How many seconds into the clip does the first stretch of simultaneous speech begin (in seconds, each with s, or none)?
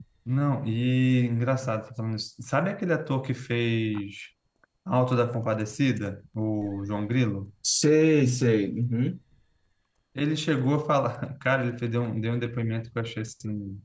none